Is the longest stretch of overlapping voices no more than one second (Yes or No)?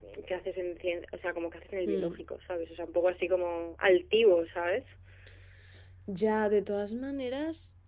Yes